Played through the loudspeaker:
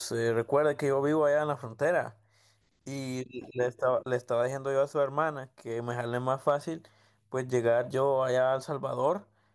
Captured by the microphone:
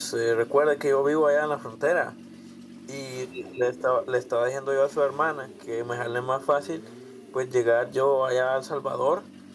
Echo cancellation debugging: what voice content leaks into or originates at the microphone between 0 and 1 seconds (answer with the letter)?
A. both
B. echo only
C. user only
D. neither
B